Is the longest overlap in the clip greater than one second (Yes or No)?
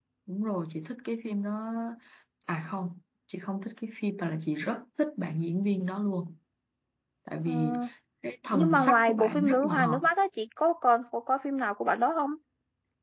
Yes